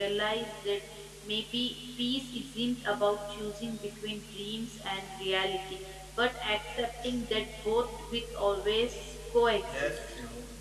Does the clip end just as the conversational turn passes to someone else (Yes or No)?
Yes